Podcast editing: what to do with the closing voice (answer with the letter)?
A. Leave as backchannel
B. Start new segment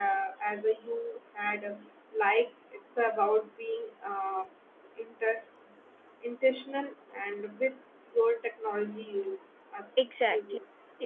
B